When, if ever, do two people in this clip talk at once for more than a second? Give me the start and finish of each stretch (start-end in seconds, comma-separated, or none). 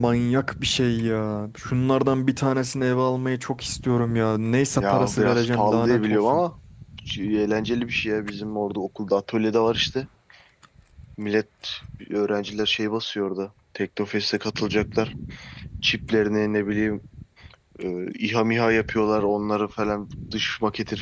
4.7-6.4